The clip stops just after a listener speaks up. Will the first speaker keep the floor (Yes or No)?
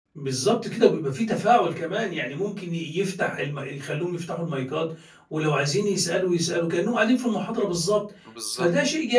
Yes